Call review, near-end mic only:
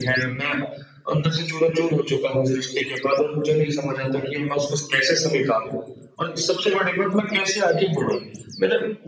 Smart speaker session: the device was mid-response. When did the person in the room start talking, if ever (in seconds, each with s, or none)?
none